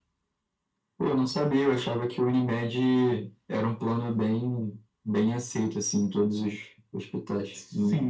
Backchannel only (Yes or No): No